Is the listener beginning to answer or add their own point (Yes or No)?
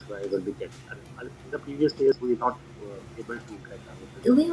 Yes